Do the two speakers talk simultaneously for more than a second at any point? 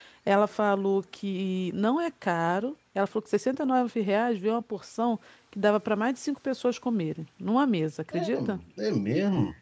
No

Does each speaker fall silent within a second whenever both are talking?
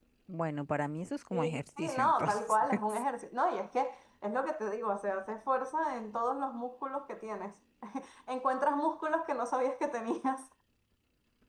No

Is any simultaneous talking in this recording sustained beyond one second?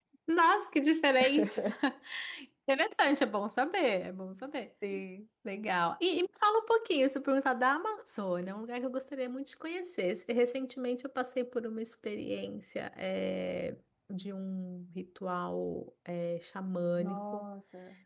No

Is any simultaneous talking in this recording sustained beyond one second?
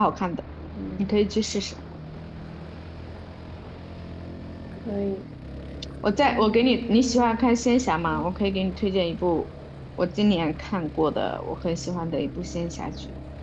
Yes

